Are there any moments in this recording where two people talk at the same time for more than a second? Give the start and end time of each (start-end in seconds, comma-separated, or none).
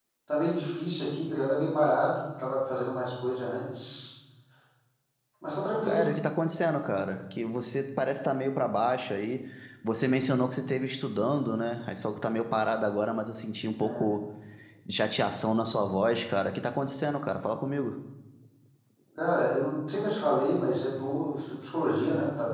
none